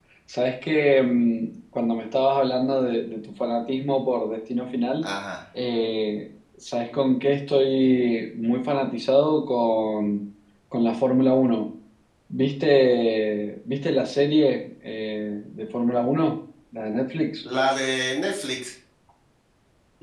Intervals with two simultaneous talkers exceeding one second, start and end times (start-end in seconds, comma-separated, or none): none